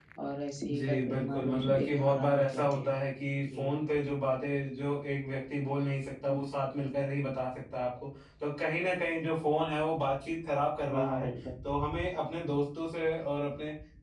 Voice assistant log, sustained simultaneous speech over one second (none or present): present